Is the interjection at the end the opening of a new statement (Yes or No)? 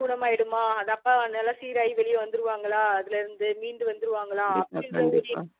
No